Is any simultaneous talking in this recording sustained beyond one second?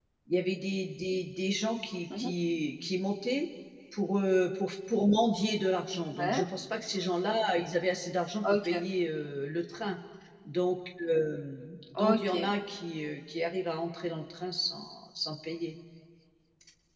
No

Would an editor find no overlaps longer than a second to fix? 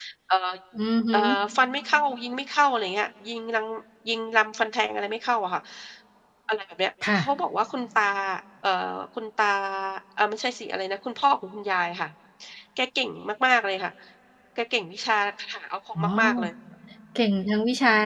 Yes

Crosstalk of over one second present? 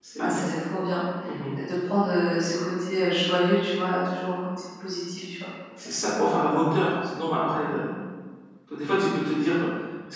No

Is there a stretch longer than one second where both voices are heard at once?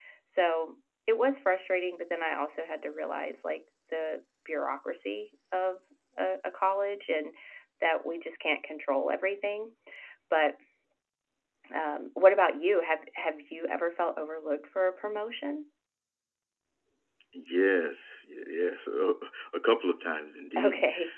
No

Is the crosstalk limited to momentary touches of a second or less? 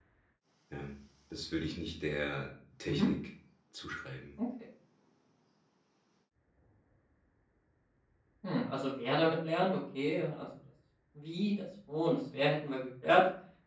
Yes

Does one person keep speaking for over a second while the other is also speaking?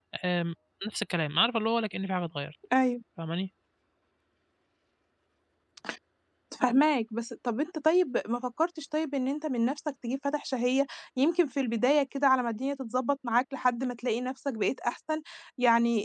No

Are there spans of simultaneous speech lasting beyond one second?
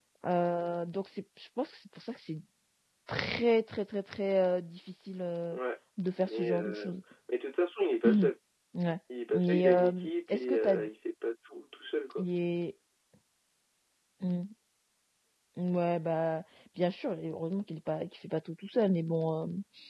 Yes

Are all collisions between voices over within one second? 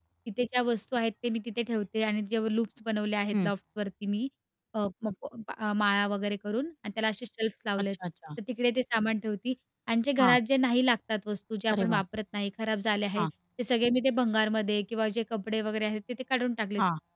Yes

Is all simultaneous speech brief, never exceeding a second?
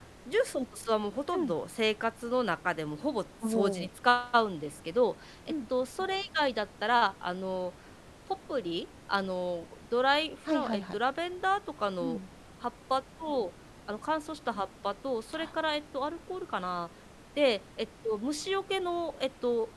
Yes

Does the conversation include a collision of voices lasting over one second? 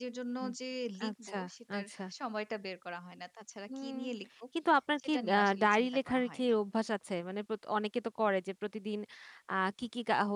Yes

